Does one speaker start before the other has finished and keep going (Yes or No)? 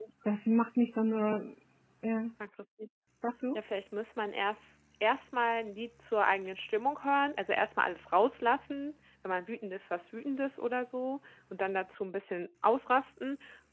No